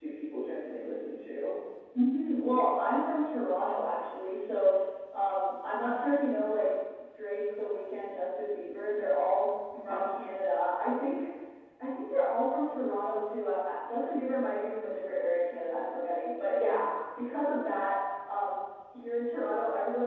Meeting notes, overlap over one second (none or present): none